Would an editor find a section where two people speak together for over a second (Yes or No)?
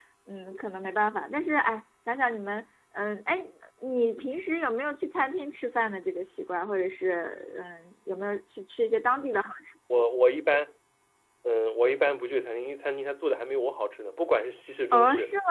No